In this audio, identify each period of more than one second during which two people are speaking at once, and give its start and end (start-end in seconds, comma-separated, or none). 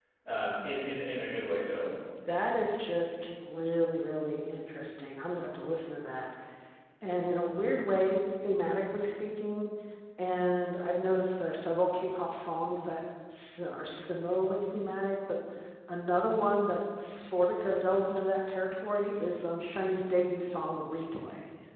none